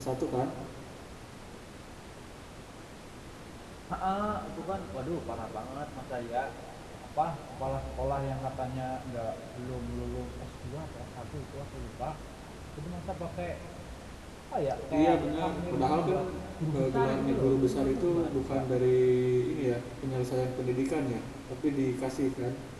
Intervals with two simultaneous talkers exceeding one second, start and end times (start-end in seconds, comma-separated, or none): 14.9-16.2, 16.8-18.6